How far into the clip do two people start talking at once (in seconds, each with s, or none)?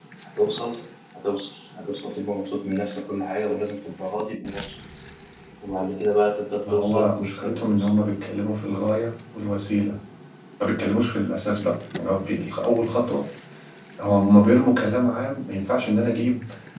6.6 s